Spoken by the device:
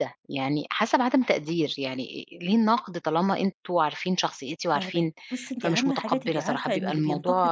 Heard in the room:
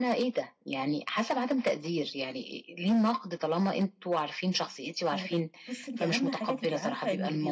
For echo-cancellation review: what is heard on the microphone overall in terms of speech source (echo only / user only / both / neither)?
echo only